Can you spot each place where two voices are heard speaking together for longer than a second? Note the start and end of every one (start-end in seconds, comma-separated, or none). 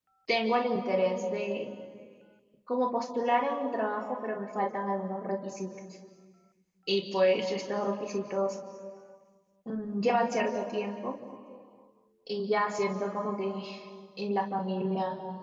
none